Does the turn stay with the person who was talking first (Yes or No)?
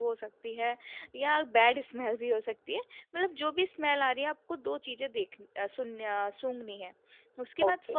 Yes